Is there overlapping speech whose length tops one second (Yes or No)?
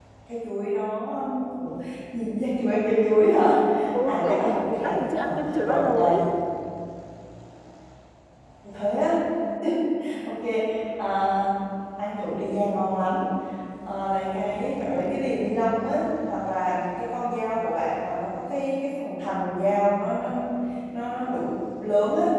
Yes